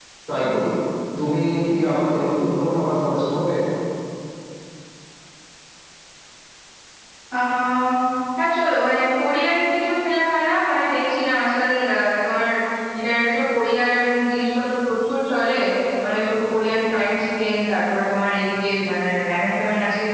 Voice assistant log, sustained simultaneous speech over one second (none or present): none